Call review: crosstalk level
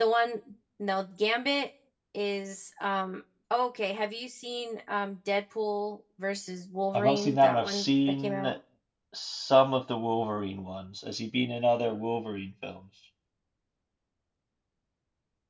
present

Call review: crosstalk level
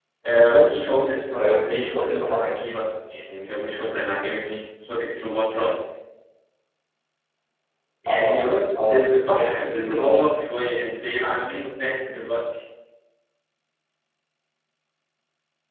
present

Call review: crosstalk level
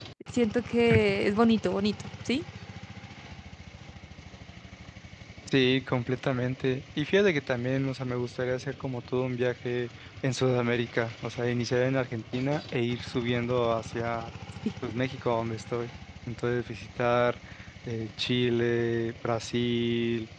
none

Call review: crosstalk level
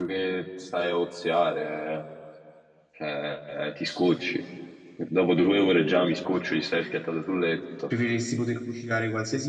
none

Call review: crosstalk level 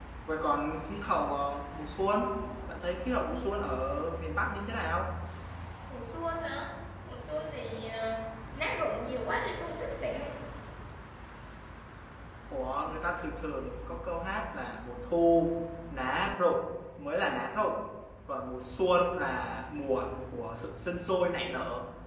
none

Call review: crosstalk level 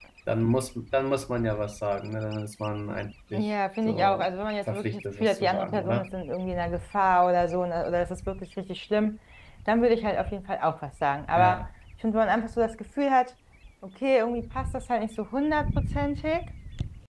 present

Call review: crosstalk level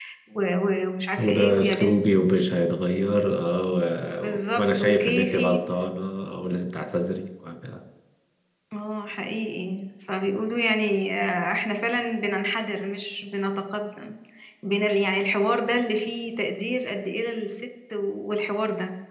present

